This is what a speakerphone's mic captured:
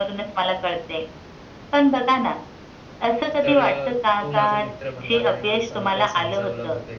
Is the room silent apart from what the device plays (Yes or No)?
No